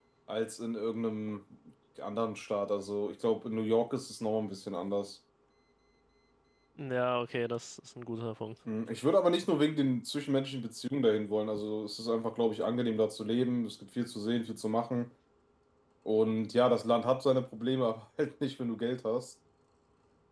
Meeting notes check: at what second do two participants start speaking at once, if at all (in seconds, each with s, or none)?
none